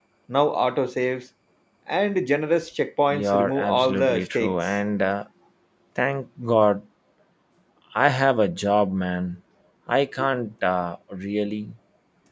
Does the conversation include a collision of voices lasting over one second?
Yes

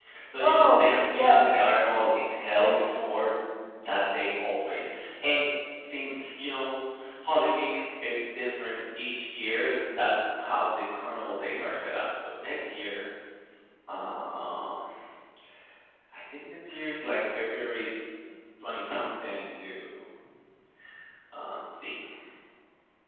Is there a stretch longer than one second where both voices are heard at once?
Yes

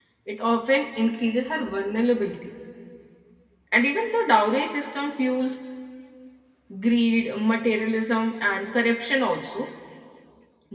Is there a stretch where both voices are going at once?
No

